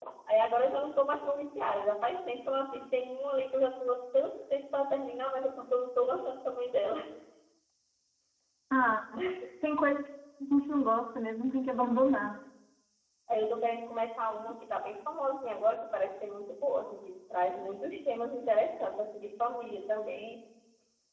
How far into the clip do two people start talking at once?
none

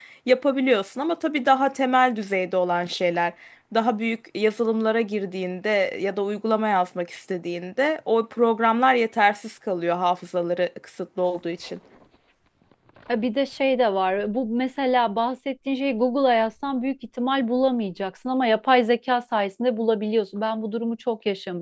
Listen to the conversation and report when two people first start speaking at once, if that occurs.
none

